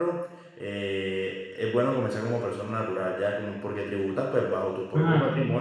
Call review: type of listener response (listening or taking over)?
listening